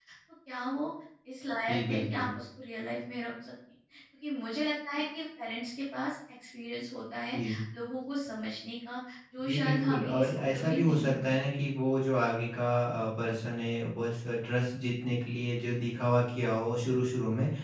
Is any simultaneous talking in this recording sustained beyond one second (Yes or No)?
Yes